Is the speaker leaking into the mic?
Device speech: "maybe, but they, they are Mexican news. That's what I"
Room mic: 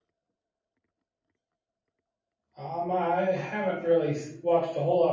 No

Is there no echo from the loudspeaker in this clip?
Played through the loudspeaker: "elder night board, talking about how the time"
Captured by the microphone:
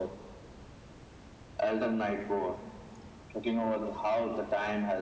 No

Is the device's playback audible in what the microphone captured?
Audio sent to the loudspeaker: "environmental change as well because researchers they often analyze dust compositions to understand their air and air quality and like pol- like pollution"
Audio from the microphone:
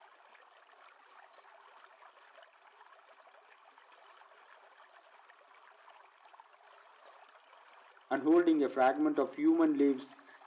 No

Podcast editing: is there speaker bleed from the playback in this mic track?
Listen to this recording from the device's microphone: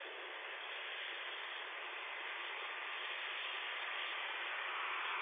No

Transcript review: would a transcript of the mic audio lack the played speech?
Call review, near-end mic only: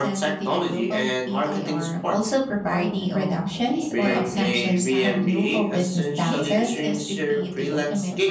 No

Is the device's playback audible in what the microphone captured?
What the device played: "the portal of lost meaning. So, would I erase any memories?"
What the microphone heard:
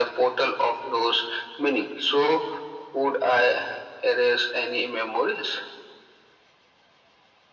Yes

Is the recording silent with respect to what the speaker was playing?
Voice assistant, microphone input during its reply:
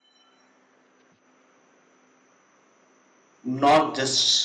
Yes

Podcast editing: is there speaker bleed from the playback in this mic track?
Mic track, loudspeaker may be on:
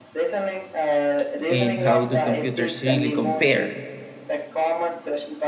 Yes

